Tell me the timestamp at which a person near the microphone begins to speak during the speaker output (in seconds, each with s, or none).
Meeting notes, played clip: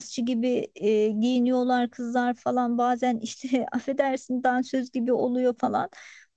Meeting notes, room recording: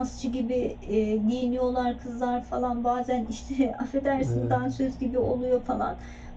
4.1 s